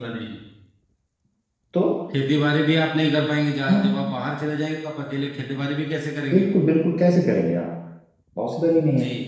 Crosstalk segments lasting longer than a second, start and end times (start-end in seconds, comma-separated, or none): none